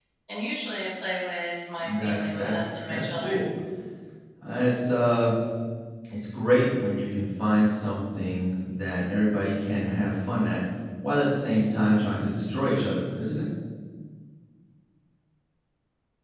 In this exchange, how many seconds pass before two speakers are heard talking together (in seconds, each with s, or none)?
1.8 s